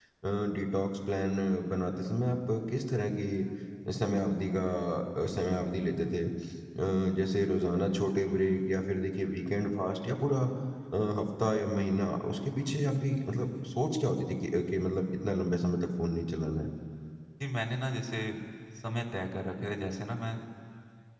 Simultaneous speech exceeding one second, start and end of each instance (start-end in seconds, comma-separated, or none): none